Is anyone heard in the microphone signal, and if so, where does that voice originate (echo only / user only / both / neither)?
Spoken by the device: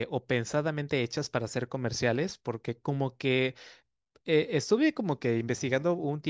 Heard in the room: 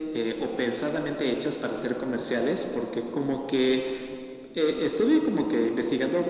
echo only